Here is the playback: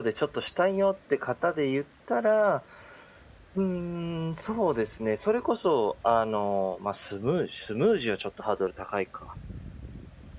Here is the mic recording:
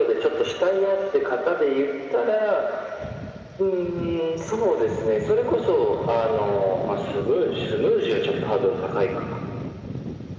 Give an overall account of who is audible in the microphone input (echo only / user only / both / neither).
echo only